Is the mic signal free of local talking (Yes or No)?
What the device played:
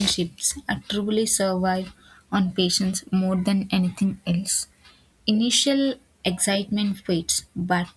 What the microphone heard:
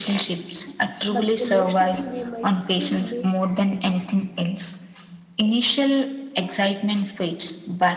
No